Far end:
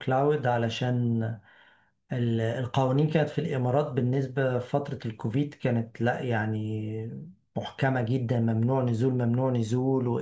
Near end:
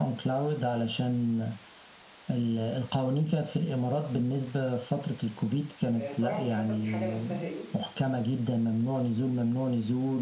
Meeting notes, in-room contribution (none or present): present